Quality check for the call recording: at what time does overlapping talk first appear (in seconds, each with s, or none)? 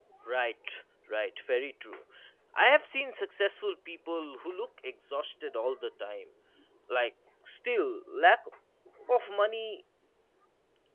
none